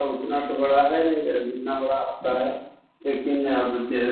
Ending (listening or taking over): listening